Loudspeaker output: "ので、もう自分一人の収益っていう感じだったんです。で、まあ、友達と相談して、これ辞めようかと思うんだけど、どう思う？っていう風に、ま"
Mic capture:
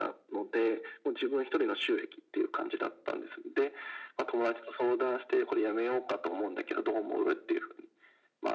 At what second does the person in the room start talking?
none

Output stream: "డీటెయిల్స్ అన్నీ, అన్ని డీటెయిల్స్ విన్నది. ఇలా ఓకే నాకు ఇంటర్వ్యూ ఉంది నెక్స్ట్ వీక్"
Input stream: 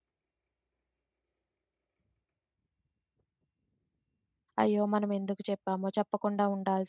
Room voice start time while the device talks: 4.6 s

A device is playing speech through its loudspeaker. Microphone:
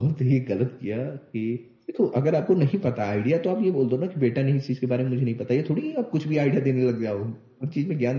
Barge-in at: none

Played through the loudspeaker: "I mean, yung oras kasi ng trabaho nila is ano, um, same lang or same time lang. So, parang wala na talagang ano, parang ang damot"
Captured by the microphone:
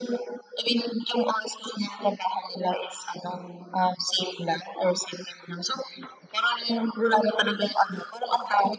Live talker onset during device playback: none

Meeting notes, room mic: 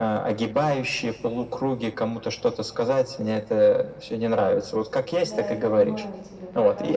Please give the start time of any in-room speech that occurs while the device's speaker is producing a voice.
5.2 s

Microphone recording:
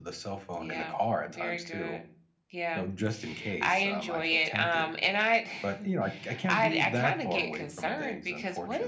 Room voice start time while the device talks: none

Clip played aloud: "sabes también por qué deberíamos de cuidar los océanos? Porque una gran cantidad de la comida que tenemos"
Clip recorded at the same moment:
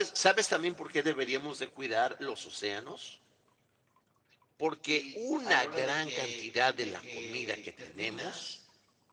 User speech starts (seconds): 4.8 s

